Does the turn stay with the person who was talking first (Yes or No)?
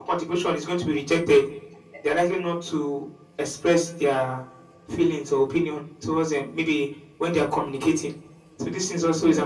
Yes